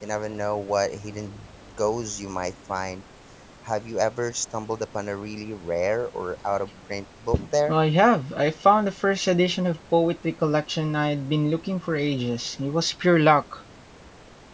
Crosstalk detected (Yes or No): No